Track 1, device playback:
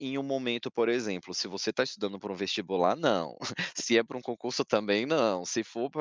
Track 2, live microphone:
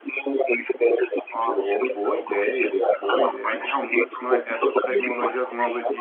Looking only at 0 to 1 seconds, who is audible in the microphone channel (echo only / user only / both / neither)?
echo only